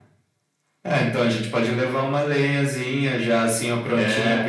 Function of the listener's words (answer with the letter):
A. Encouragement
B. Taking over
A